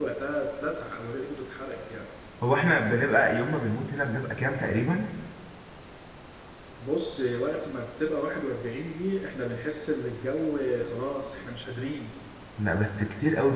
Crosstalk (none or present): none